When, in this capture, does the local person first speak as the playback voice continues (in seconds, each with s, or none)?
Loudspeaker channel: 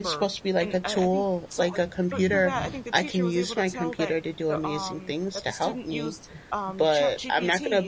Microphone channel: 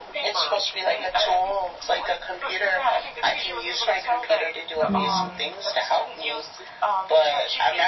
4.9 s